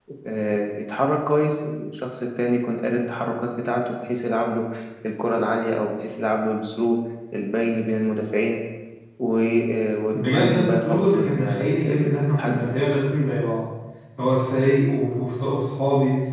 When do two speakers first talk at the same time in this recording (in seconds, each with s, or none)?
10.1 s